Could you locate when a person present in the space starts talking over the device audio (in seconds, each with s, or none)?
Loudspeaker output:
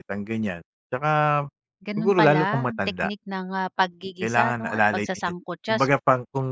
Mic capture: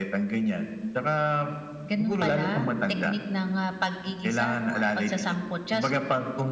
none